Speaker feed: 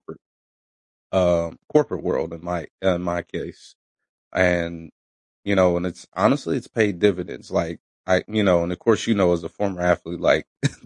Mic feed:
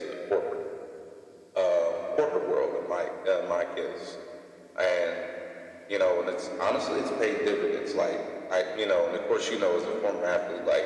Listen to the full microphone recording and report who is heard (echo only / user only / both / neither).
echo only